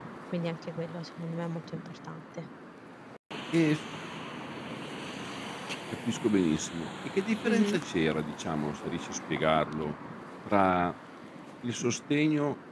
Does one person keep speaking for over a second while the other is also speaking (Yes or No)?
No